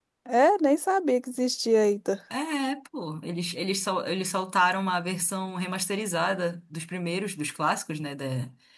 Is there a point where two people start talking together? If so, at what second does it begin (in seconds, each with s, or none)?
none